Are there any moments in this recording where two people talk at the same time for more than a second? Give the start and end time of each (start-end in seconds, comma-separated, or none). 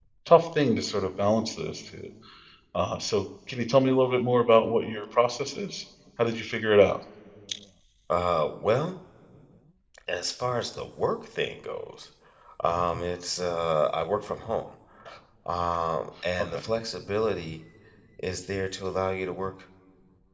none